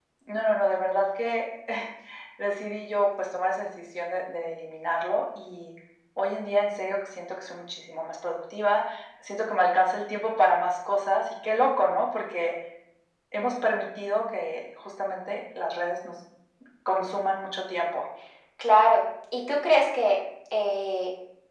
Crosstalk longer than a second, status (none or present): none